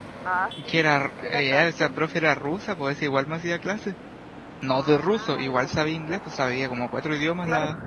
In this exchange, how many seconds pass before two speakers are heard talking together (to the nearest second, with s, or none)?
1 s